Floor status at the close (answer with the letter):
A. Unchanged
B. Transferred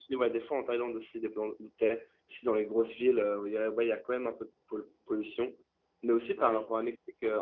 A